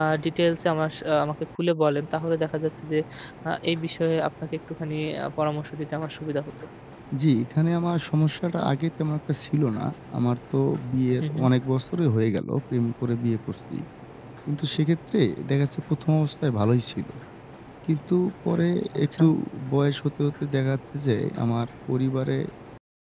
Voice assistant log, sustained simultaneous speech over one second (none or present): none